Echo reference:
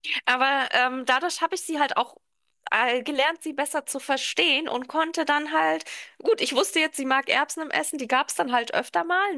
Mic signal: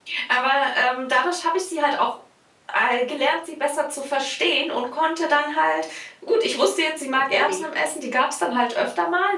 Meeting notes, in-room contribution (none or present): present